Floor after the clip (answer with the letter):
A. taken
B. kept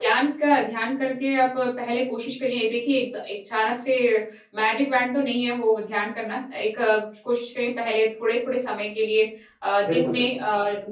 B